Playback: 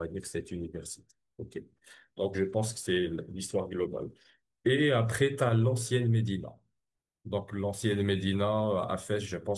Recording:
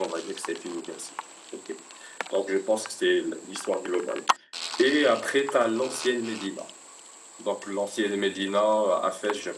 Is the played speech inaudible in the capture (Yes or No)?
No